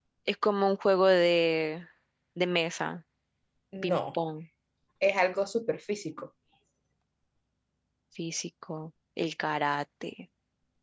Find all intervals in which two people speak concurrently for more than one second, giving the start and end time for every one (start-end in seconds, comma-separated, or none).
none